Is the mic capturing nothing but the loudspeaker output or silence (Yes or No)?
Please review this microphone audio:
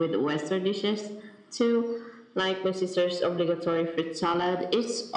Yes